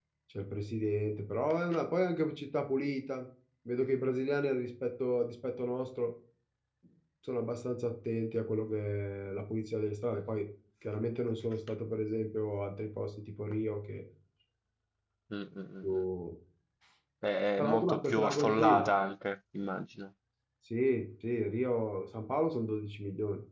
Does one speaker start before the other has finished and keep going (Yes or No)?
Yes